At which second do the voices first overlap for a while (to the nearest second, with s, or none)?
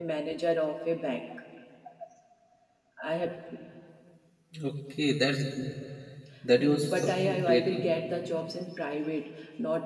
7 s